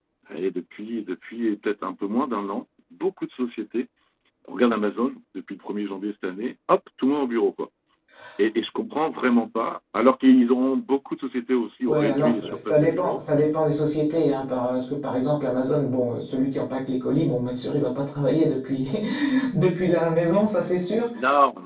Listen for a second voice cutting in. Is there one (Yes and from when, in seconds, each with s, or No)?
Yes, from 11.9 s